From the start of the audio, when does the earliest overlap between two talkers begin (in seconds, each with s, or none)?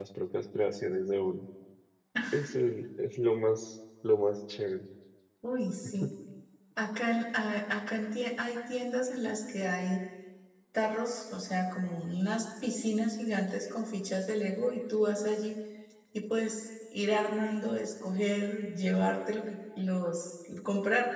none